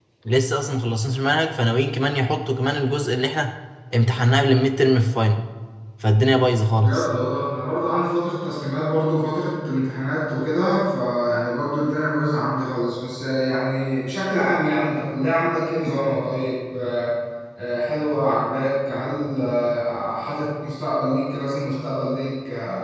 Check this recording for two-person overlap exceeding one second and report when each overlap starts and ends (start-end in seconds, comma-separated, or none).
none